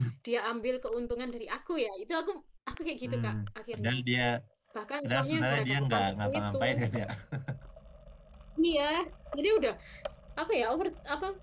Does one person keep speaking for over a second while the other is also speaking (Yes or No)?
Yes